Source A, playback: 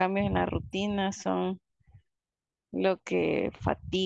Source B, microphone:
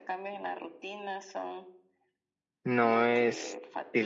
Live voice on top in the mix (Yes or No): Yes